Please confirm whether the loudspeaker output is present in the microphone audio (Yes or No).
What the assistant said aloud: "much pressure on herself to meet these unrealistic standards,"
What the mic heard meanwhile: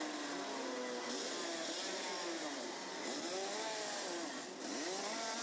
No